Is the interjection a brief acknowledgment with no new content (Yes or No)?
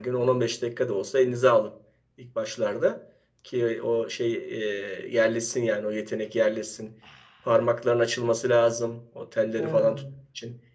Yes